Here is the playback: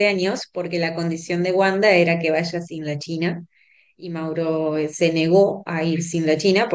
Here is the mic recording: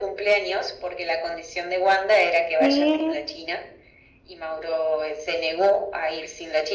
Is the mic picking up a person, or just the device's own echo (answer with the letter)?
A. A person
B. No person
A